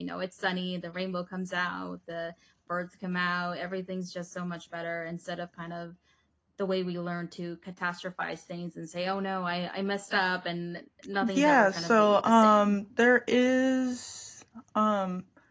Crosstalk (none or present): present